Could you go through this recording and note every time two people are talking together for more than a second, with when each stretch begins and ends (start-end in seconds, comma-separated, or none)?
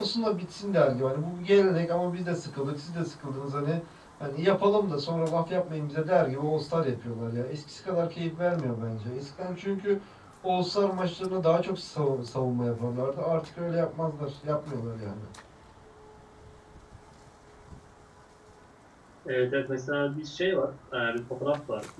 none